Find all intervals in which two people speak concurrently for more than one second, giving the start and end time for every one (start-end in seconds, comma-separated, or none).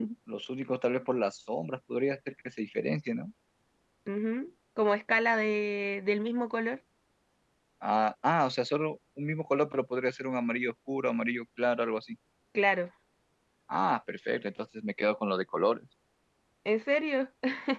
none